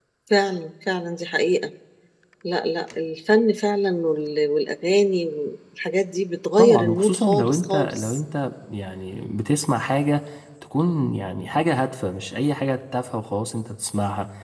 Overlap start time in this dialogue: 6.6 s

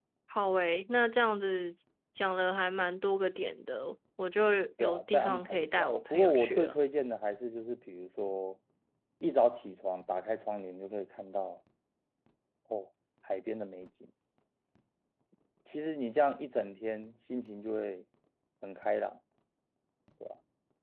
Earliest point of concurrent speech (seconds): 4.8 s

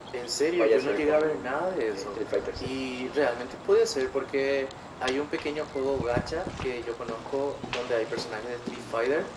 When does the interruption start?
0.6 s

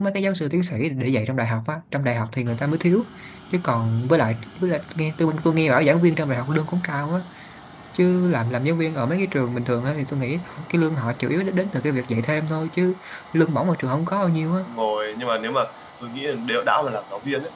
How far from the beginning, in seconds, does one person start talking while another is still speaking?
none

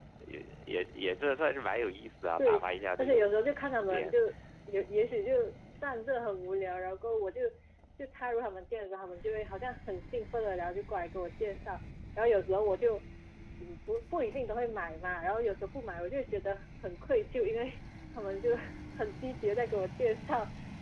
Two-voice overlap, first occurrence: 2.4 s

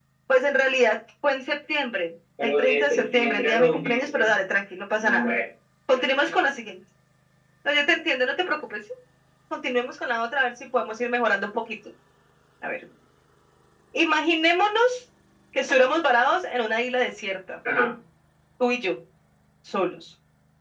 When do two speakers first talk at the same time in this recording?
2.4 s

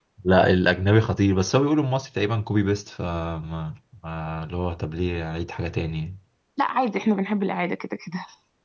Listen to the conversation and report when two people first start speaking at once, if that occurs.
none

